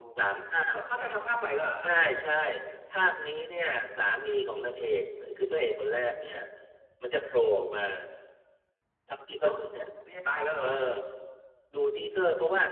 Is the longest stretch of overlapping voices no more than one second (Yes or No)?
Yes